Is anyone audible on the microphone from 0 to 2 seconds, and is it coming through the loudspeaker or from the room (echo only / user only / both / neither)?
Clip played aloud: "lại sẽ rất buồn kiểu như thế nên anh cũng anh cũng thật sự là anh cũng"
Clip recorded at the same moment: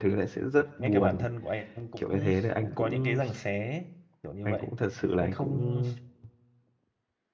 both